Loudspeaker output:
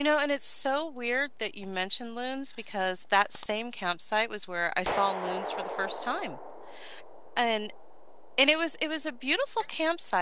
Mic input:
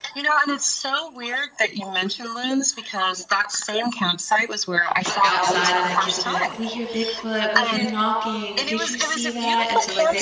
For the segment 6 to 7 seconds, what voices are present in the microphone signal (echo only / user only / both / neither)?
both